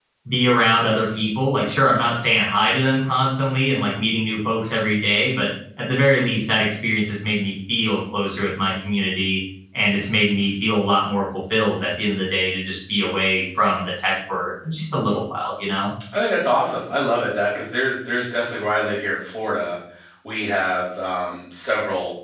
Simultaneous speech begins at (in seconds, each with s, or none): none